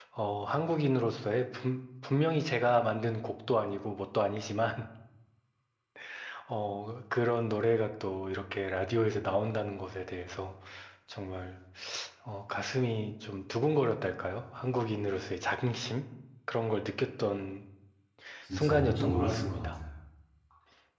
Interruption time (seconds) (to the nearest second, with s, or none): 19 s